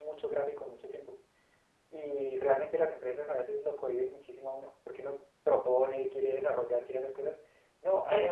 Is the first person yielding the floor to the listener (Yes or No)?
No